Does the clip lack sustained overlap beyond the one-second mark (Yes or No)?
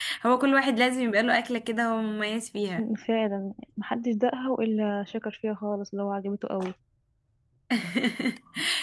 Yes